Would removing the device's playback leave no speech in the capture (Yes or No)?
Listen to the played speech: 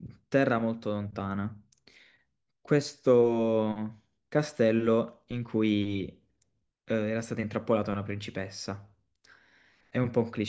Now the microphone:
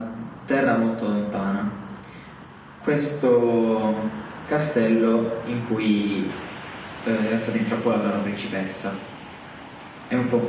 Yes